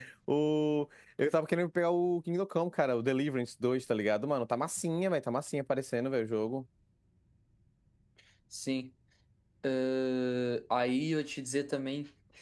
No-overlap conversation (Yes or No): Yes